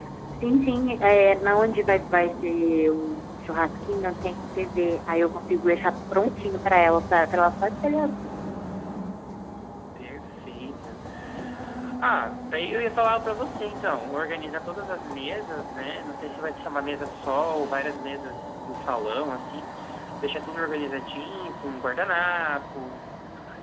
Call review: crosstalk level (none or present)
none